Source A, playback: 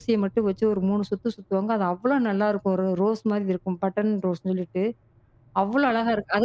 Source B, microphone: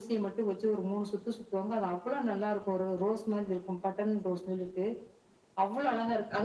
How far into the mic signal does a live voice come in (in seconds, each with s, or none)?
none